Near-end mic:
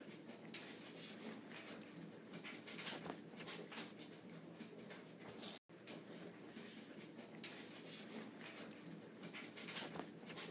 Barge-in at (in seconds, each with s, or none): none